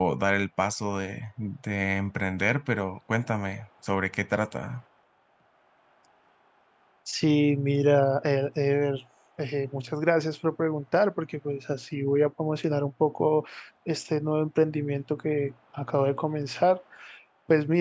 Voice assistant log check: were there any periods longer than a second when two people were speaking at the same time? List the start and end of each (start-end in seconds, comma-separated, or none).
none